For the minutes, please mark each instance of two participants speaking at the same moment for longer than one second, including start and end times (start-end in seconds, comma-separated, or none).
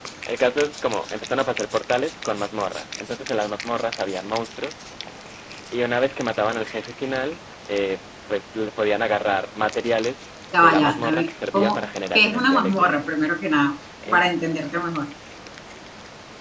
10.6-13.0